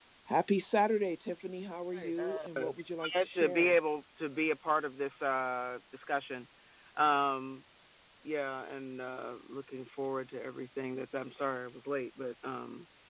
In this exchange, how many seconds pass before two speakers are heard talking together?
1.9 s

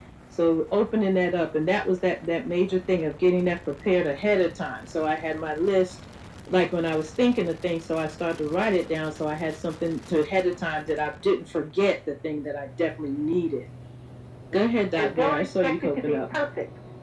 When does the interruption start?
15.0 s

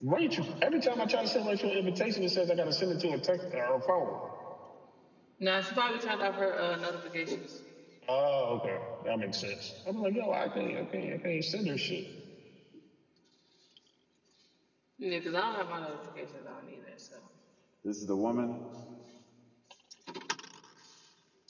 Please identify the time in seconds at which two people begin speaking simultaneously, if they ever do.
none

